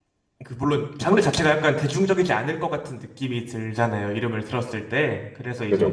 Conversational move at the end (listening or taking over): listening